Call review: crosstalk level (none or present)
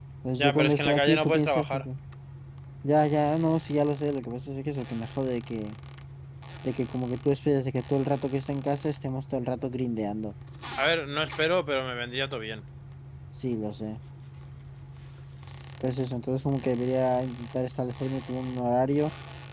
present